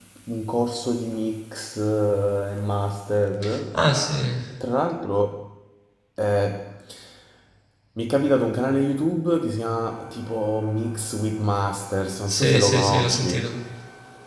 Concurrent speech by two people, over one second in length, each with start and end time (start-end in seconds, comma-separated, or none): 12.3-13.6